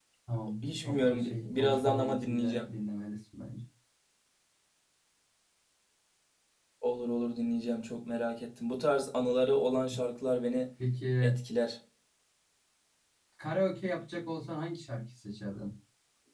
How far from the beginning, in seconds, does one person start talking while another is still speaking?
1 s

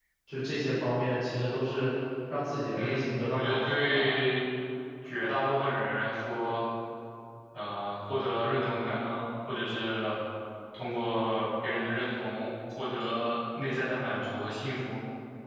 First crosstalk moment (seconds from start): 3 s

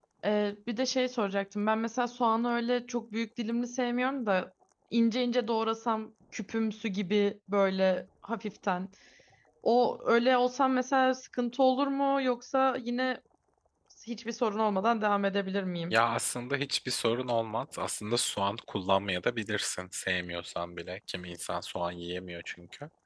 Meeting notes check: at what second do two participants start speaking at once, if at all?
none

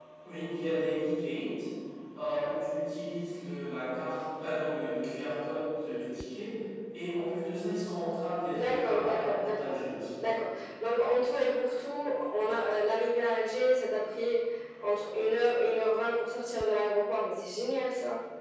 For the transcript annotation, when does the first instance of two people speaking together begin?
9 s

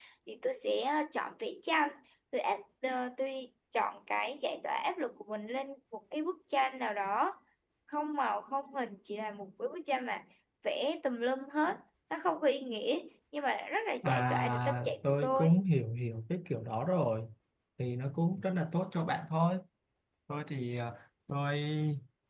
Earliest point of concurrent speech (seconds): 14 s

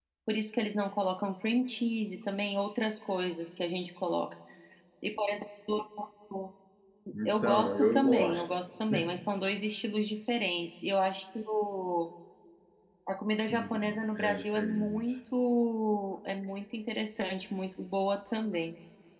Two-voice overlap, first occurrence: 7 s

